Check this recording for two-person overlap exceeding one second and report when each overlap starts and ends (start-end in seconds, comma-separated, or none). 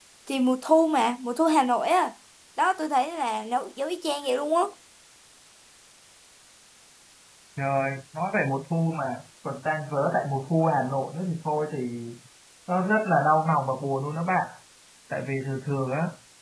none